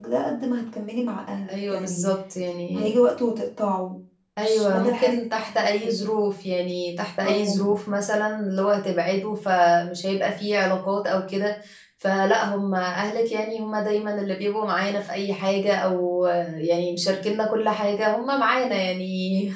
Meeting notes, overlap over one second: present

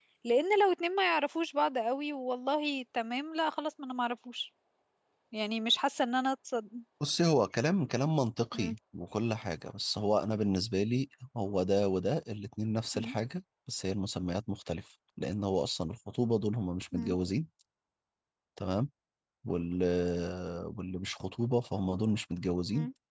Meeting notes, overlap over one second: none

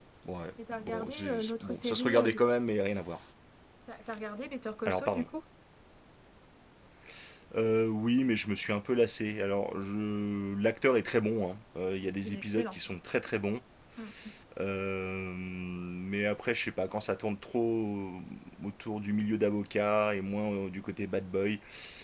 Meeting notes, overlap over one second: present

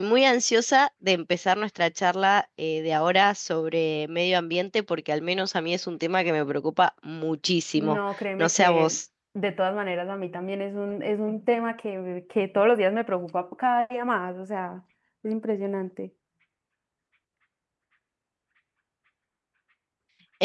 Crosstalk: present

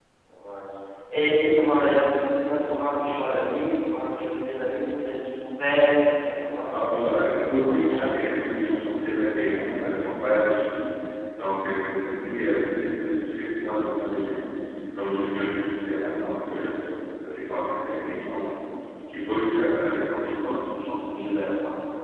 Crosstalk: present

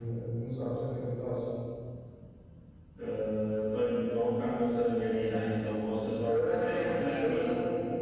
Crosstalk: present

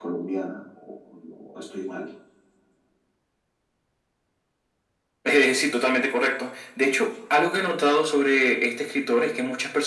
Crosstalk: none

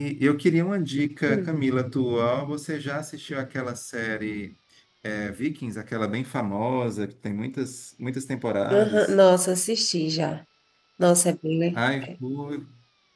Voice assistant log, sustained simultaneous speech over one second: none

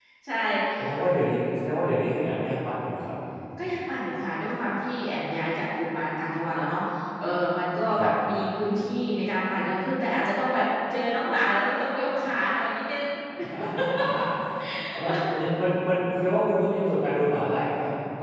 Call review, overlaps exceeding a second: none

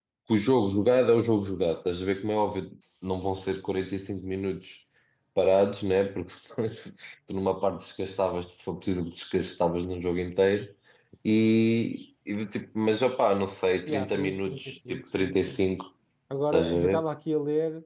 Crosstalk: present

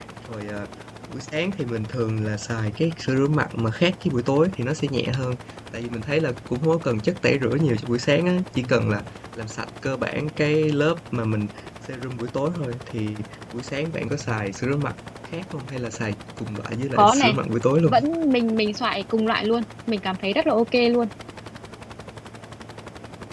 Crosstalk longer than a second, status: none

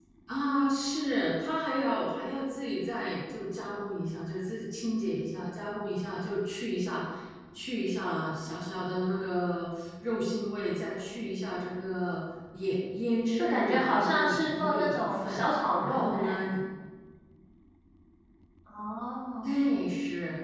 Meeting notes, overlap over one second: present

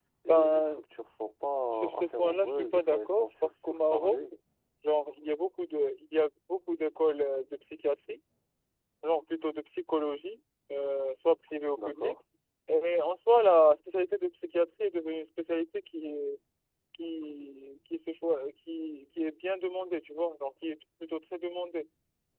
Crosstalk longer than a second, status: present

